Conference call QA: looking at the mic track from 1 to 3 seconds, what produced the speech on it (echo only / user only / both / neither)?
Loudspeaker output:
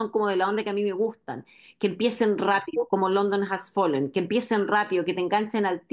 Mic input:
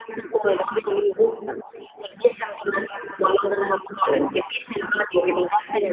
echo only